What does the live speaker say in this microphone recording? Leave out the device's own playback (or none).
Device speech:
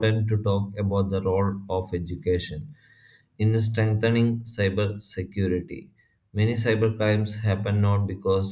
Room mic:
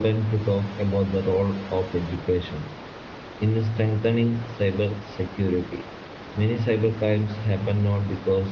none